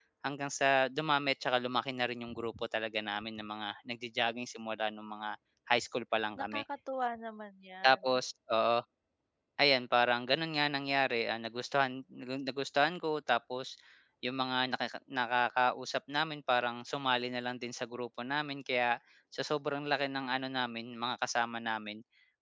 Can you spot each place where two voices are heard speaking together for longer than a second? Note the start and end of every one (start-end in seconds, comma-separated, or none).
none